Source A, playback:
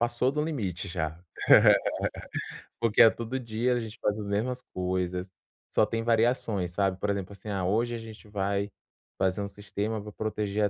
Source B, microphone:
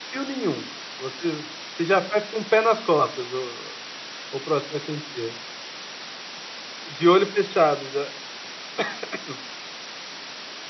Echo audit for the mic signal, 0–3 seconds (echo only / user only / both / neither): user only